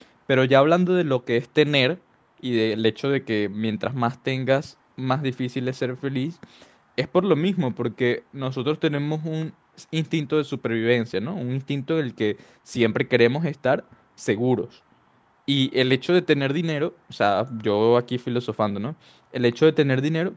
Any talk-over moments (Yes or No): No